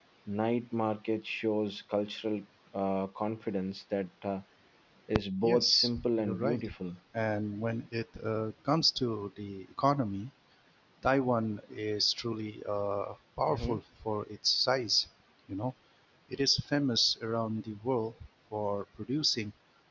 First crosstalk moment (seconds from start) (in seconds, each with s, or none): 5.4 s